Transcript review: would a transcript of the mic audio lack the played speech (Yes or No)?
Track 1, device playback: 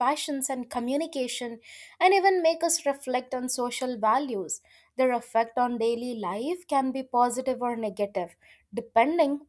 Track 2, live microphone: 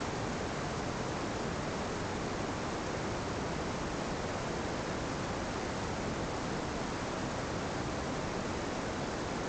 Yes